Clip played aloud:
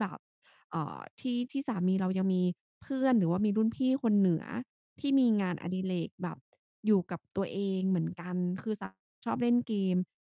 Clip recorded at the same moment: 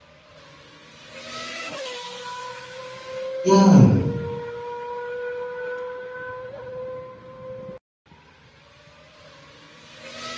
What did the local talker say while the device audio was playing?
อืม

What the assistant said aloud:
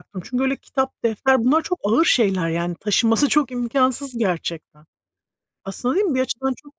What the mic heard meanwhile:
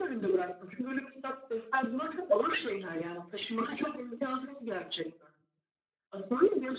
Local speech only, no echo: none

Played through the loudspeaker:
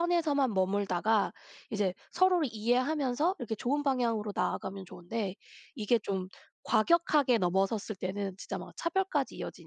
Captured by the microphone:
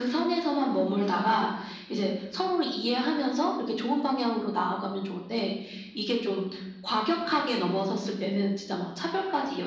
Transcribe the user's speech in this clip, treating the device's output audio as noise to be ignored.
none

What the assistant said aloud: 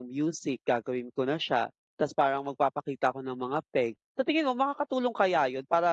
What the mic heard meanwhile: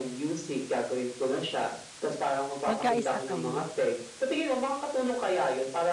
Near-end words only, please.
Magkaisa kayo.

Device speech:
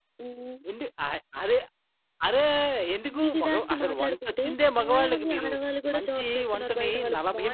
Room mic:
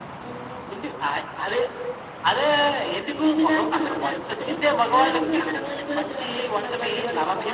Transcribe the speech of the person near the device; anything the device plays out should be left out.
none

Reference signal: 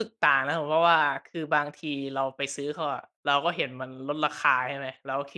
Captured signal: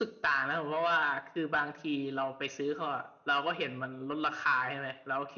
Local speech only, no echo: none

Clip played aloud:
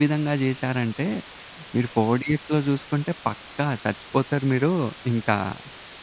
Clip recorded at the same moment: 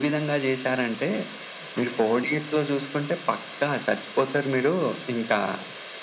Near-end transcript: అంతేలెండి.

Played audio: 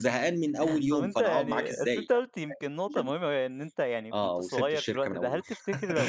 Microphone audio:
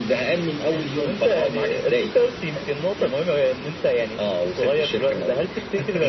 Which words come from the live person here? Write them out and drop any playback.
none

